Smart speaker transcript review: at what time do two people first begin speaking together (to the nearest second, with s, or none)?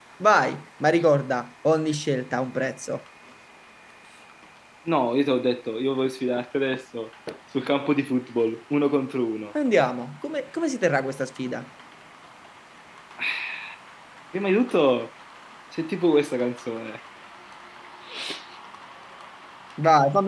none